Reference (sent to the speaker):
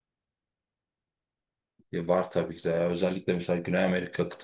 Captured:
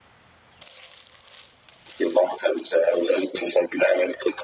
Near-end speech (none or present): none